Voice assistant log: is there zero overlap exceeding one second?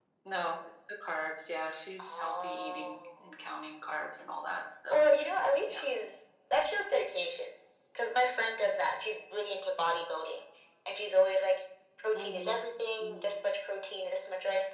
No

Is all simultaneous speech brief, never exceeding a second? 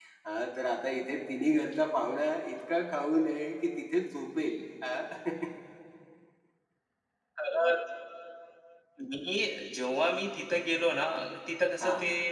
Yes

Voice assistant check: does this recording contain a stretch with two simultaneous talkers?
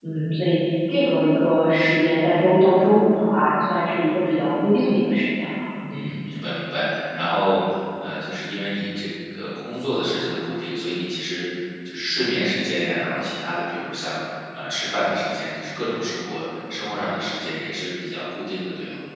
No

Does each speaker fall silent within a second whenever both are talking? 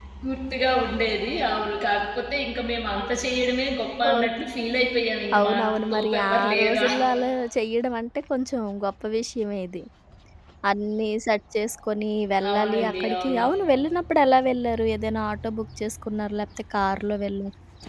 No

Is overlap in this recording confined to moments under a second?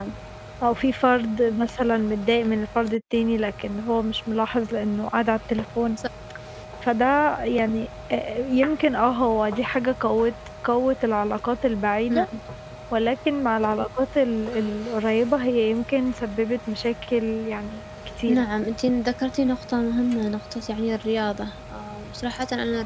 Yes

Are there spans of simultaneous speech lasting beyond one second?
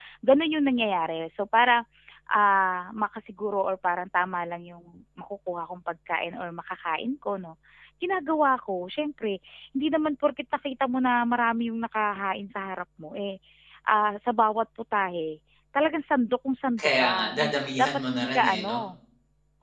Yes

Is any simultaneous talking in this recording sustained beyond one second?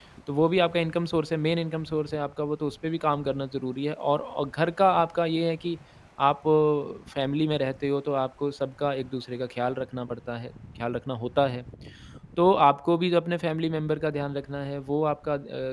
No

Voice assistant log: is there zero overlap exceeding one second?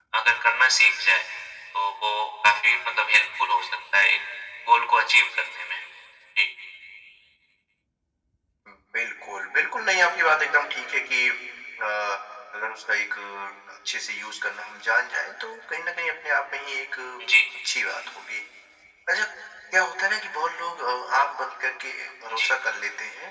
Yes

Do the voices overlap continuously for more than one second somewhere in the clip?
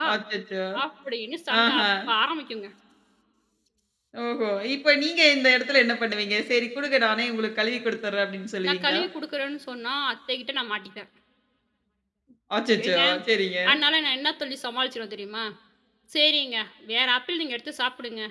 No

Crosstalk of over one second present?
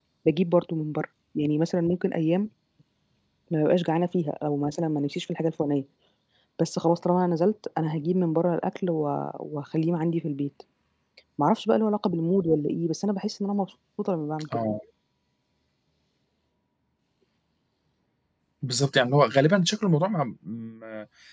No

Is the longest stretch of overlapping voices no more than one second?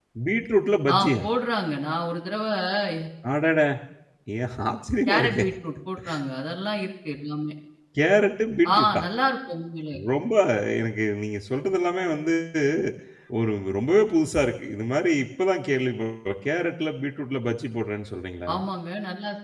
Yes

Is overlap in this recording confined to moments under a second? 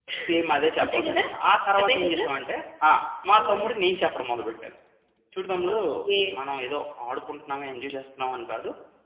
Yes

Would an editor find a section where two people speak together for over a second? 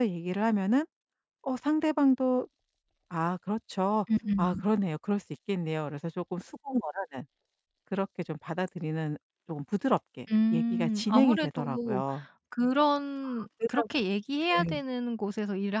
Yes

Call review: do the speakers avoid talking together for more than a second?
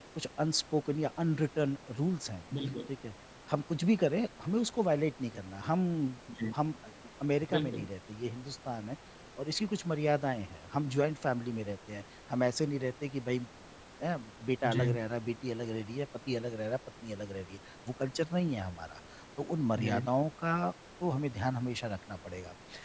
Yes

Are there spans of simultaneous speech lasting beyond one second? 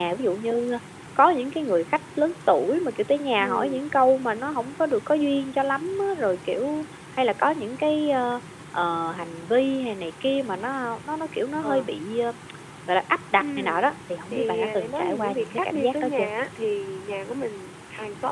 Yes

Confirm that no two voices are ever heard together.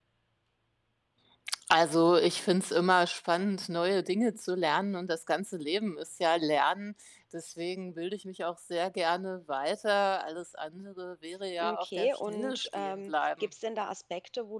No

